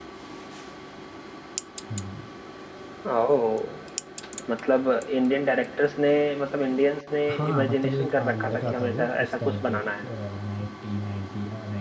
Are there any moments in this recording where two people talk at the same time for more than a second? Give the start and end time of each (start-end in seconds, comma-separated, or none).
7.3-9.8